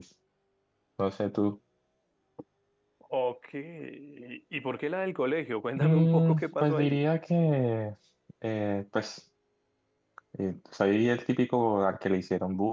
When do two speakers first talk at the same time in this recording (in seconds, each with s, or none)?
5.8 s